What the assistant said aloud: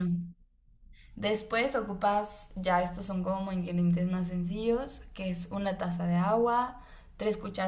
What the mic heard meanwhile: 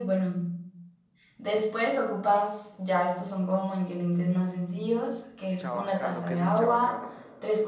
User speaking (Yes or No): Yes